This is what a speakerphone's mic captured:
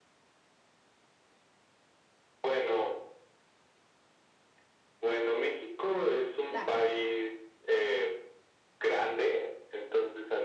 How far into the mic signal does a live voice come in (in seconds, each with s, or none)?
6.5 s